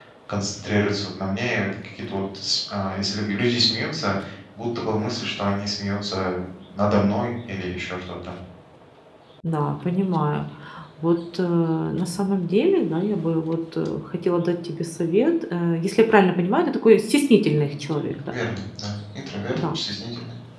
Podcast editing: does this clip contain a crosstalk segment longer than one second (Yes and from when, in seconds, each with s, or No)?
No